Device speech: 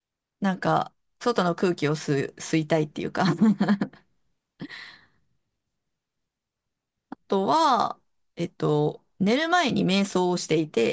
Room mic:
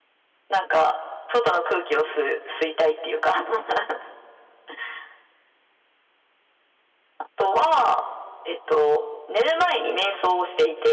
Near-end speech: none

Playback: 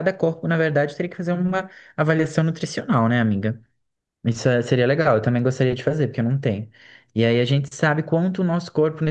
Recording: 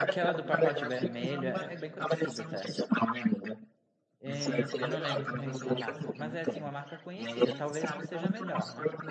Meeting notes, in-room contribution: present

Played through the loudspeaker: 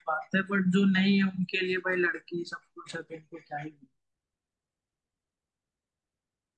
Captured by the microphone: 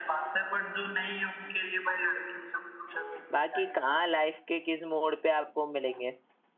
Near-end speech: present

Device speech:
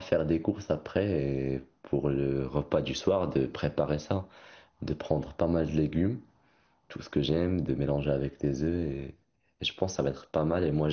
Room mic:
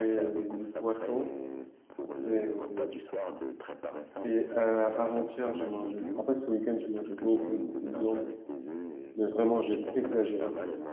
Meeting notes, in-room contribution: present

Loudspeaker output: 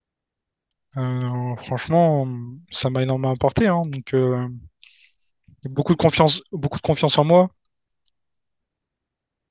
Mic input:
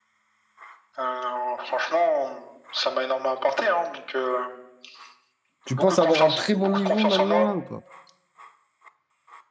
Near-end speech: present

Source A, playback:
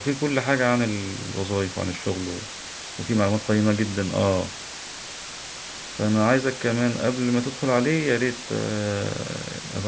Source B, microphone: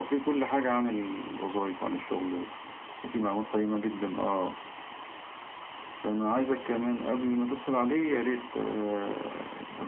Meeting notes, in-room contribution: none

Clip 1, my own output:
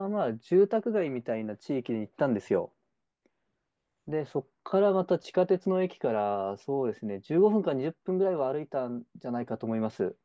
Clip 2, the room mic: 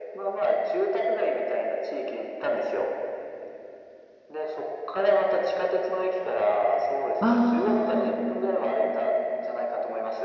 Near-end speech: present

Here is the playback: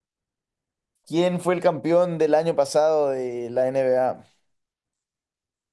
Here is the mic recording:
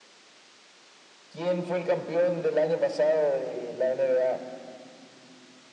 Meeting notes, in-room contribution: none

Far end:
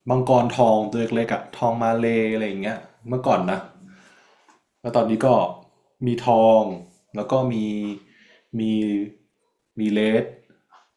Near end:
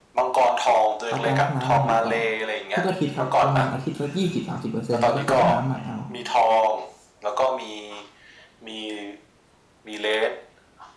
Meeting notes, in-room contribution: present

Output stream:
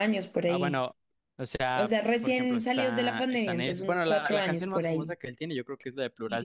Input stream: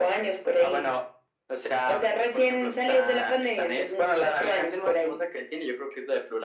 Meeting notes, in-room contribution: none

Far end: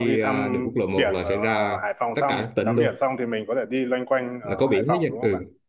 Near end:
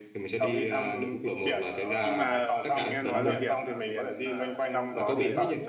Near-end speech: present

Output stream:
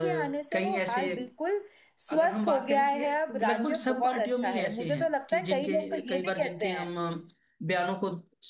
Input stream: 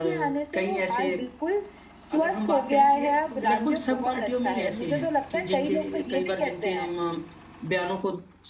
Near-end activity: none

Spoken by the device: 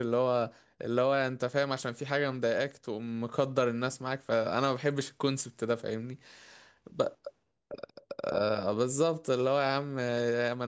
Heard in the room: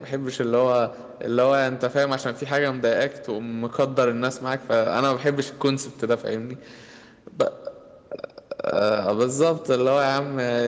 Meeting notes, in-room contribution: none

